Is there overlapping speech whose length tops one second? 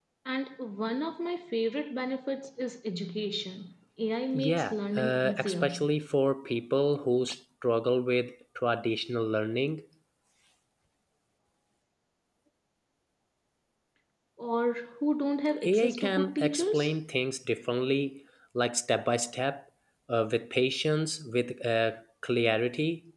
Yes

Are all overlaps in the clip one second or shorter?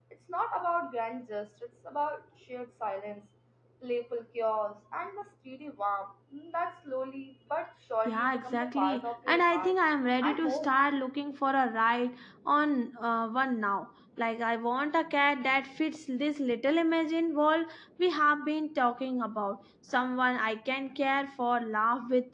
No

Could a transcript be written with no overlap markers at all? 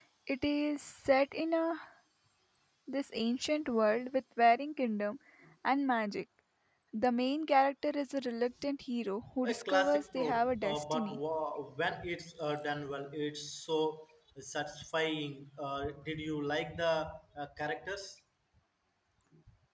No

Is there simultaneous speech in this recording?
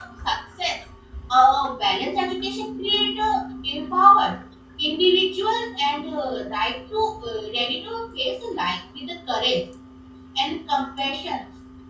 No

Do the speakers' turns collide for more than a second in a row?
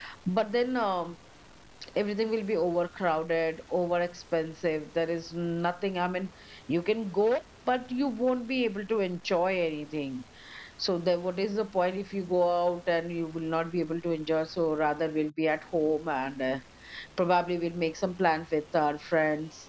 No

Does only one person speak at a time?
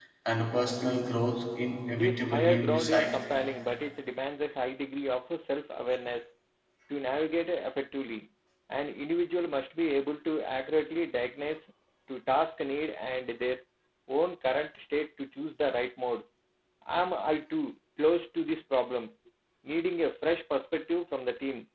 No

